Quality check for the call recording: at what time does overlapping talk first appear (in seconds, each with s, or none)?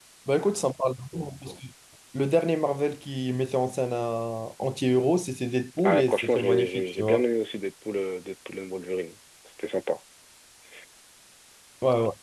5.8 s